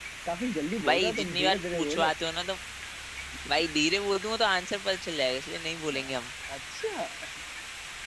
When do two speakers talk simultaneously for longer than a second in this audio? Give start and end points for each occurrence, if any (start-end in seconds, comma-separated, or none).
0.8-2.1